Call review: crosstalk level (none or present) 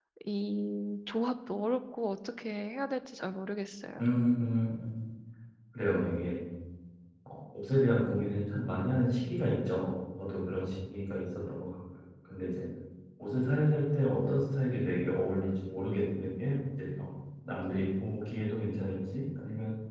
none